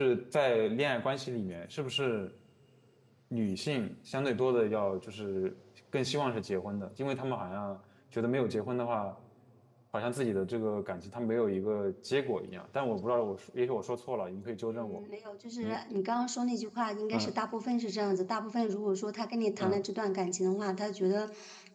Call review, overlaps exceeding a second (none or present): none